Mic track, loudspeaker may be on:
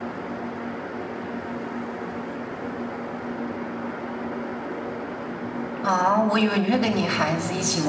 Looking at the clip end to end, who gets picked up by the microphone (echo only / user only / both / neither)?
user only